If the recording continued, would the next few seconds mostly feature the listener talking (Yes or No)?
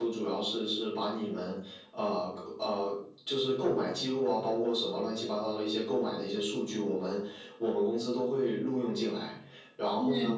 No